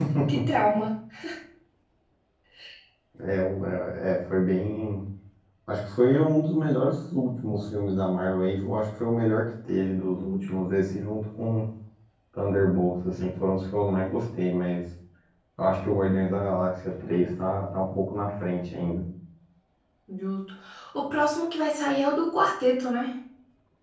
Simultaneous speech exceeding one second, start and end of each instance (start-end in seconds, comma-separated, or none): none